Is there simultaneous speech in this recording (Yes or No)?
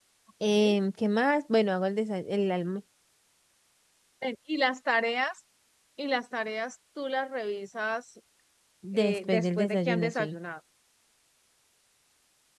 Yes